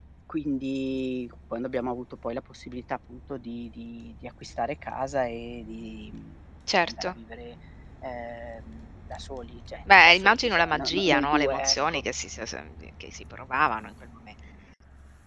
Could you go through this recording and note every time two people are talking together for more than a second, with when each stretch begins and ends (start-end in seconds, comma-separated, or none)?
10.1-12.0